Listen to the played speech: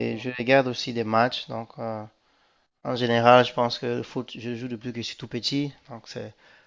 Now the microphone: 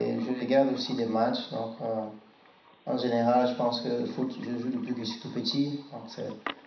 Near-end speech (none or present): none